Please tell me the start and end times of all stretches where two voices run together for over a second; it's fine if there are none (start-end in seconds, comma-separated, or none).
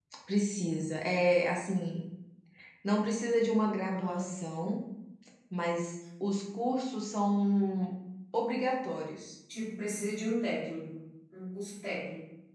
none